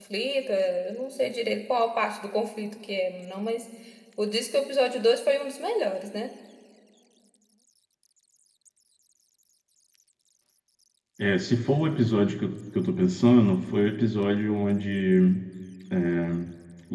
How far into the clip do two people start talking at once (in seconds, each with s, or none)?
none